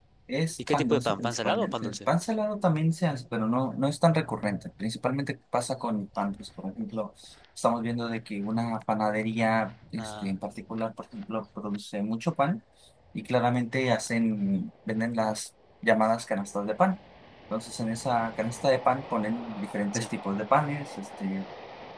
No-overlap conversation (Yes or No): No